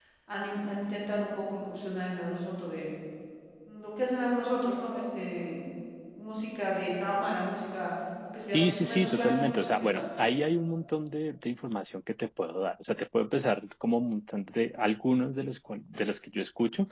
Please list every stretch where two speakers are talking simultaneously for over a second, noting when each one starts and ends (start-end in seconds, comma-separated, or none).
8.5-10.0